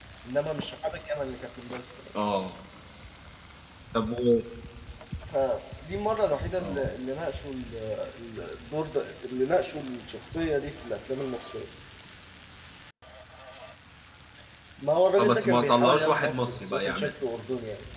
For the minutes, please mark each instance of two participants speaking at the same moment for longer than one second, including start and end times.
15.2-17.1

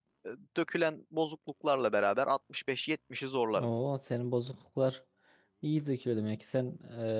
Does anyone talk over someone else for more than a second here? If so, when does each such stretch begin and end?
none

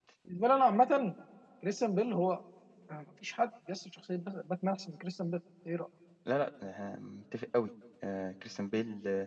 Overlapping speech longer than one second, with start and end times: none

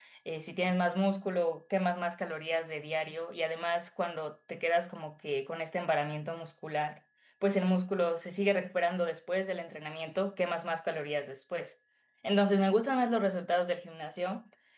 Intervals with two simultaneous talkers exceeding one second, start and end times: none

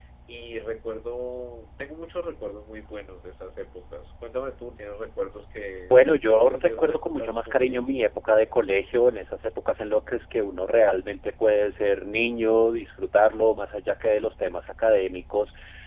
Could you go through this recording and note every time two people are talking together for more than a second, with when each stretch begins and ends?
5.9-7.8

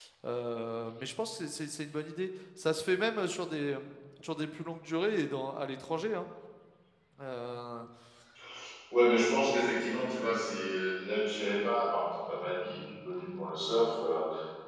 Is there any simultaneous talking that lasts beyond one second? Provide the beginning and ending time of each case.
none

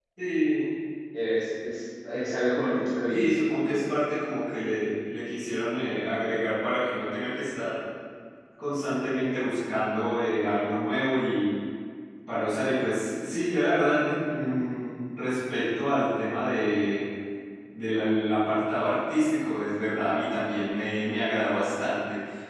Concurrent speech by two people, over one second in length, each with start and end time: none

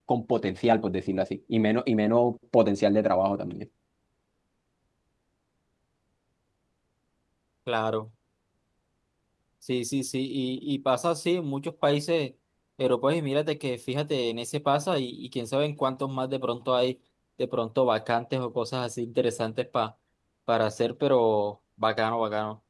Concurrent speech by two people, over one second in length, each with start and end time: none

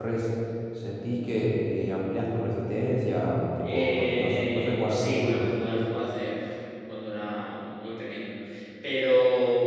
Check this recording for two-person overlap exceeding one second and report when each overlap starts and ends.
3.6-5.6

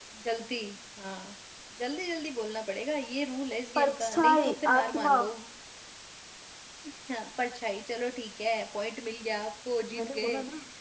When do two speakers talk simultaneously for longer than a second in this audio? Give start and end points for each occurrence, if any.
3.8-5.2

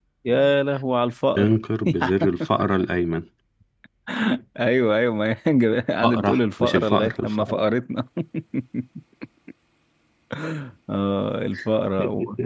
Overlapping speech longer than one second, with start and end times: 6.0-7.6

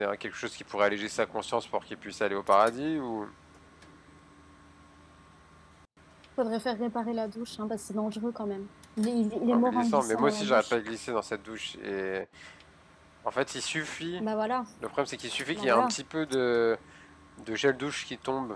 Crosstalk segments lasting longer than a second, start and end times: 9.5-10.8

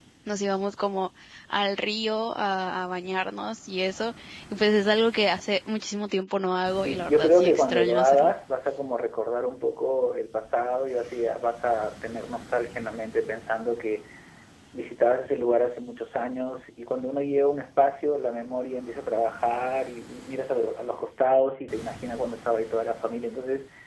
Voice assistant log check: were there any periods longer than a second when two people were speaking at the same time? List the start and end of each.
6.8-8.3

